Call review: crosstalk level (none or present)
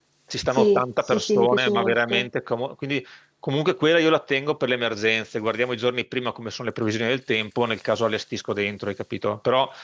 present